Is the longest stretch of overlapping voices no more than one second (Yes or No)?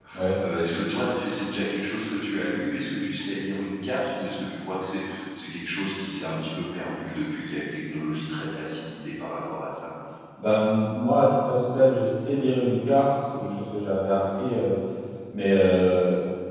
Yes